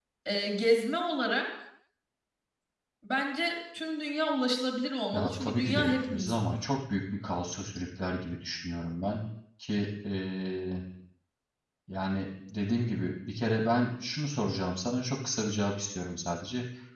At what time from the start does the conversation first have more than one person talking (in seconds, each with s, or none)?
5.1 s